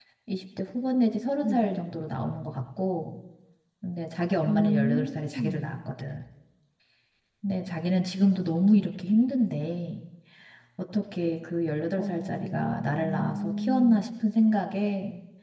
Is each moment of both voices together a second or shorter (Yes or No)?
No